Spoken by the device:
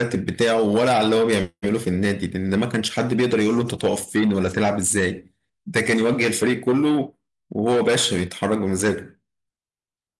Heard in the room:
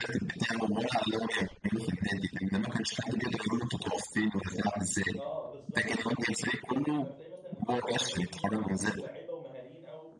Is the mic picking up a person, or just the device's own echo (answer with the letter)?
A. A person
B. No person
A